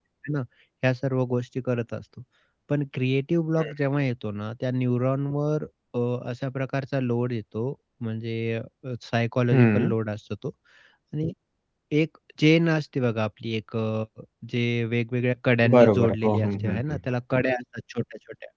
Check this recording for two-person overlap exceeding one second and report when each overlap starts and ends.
15.7-17.0

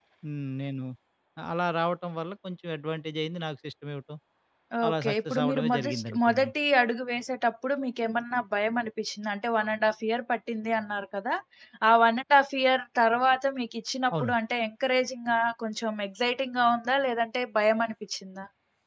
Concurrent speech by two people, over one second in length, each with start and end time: 4.9-6.5

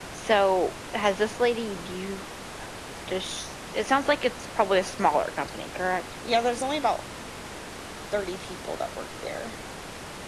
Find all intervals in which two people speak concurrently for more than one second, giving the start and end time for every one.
none

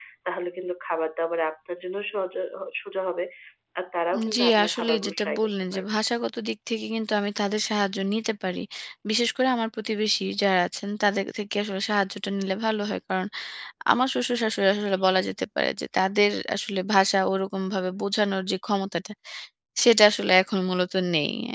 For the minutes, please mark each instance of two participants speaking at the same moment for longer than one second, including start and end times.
4.4-5.8

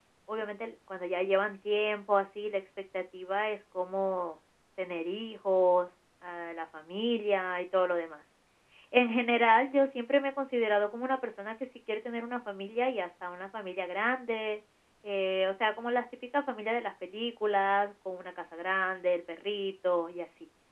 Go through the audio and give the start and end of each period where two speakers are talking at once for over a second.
none

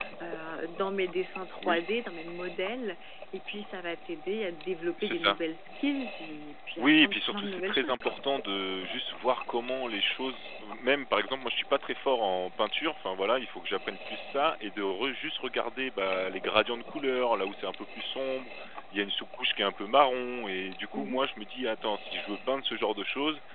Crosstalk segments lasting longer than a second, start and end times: 6.8-8.2

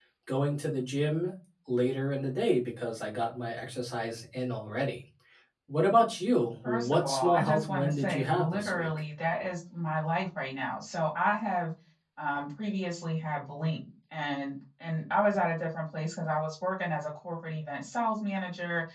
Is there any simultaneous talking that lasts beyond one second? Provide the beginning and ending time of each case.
6.6-8.9

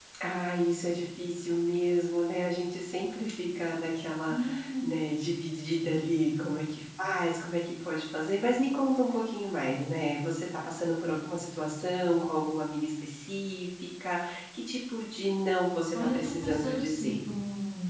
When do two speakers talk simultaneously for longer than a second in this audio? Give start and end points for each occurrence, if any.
15.9-17.2

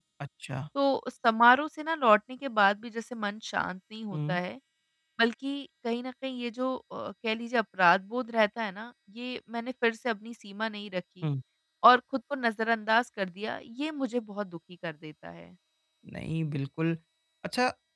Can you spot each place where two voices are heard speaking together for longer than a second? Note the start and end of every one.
none

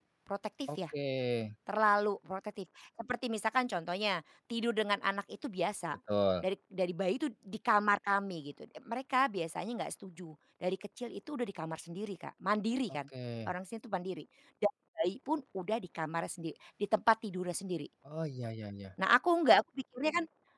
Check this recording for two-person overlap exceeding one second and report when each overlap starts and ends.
none

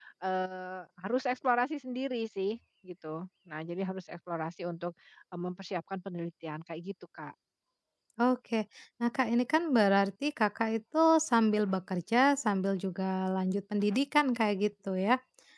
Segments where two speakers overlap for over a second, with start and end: none

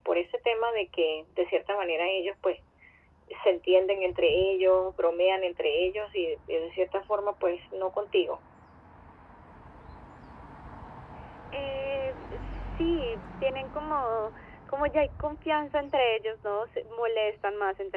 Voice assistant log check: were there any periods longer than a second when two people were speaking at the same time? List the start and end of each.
none

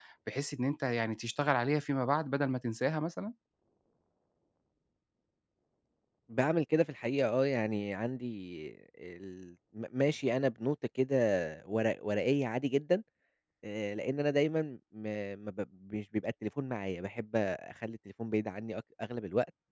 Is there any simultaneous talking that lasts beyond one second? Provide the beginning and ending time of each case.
none

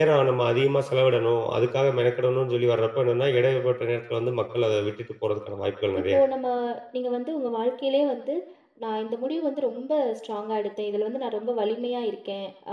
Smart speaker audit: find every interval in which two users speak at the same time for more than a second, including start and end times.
none

